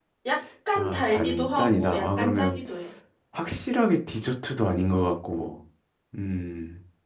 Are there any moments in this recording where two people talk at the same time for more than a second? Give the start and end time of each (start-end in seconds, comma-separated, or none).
0.8-2.6